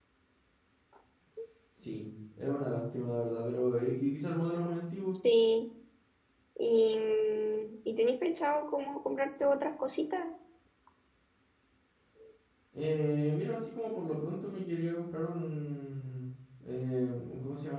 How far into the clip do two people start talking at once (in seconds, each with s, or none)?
none